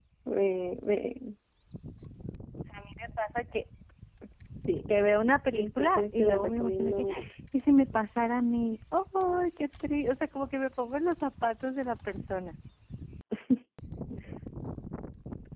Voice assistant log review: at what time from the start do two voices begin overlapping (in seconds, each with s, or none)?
5.5 s